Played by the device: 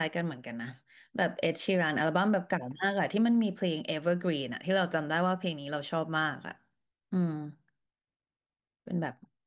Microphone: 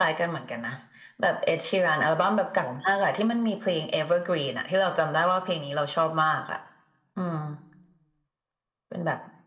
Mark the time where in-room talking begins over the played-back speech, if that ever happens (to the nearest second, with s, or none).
none